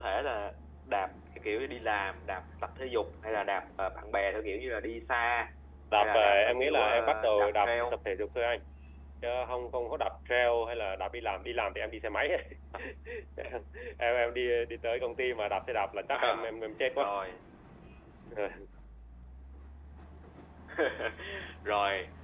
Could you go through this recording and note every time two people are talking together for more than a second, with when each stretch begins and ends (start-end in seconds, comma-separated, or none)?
6.0-7.8